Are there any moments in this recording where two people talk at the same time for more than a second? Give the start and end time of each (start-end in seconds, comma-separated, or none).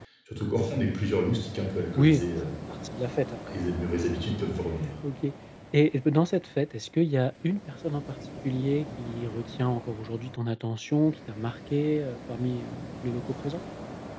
none